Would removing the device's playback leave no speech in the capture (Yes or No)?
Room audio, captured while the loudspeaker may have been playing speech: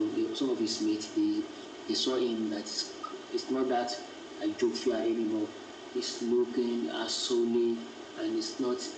Yes